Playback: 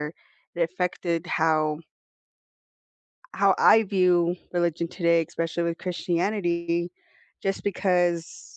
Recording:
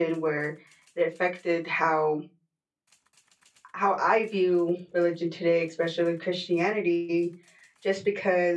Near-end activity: none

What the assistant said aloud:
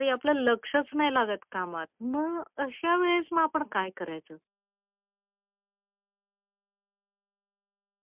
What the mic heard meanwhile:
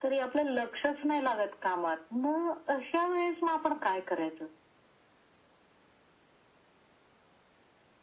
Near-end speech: none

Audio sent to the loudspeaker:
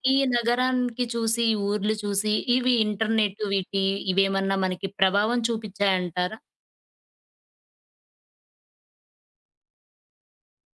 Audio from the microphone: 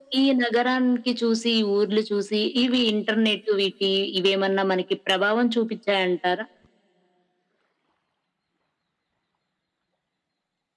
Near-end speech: none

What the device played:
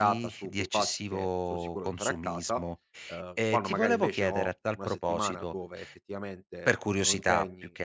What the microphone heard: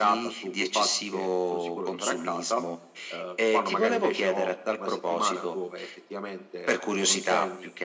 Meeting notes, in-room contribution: none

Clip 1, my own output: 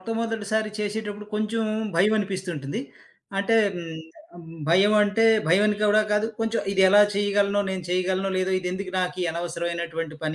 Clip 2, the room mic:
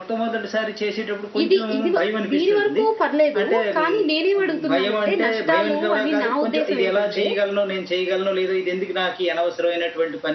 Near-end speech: present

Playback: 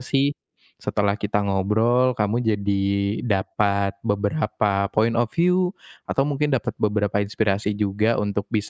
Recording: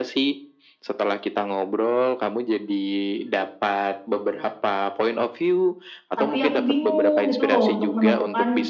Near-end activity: present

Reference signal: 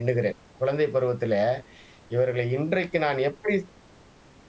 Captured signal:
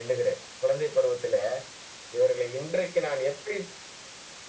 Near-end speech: none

